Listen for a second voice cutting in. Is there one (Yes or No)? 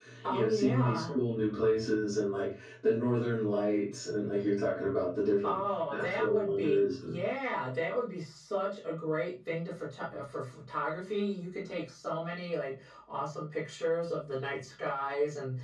Yes